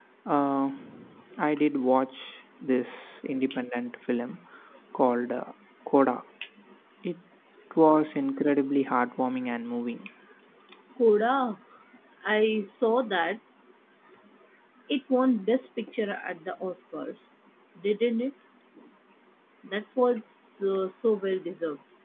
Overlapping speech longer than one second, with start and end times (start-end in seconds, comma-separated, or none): none